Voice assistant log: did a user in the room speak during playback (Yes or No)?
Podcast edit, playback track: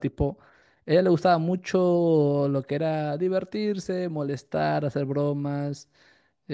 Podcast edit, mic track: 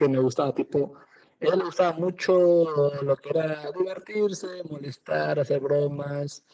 No